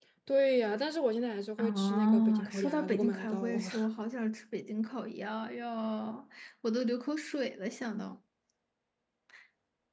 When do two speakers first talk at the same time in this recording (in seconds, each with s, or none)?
1.6 s